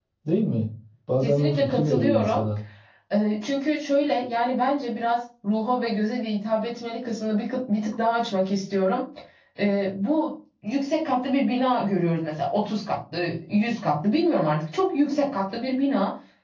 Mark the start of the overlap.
1.2 s

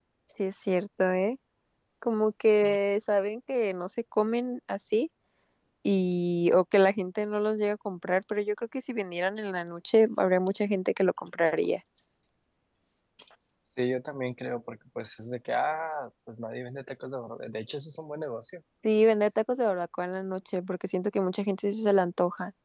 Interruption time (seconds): none

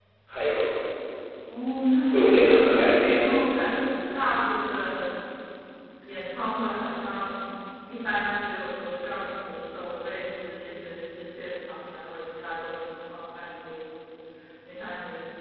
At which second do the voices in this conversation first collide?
2.1 s

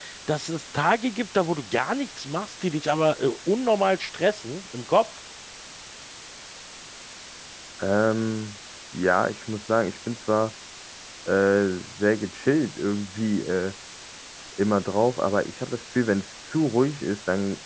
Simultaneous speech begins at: none

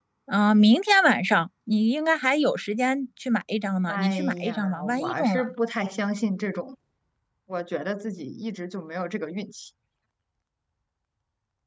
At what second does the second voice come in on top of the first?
3.9 s

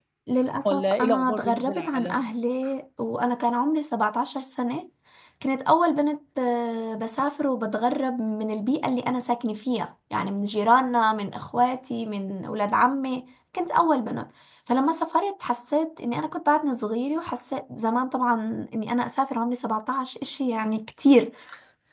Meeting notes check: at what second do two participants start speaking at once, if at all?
0.7 s

